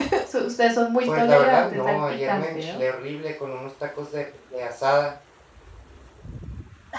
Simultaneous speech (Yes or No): Yes